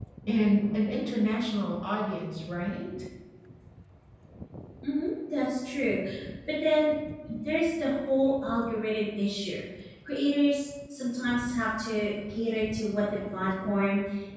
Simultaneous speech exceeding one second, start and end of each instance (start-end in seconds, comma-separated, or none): none